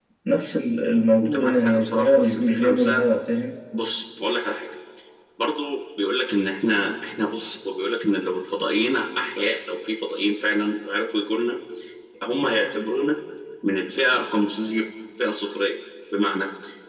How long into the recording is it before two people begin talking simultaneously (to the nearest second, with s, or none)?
1 s